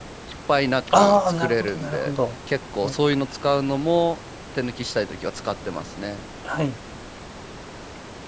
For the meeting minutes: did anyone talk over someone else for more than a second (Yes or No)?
Yes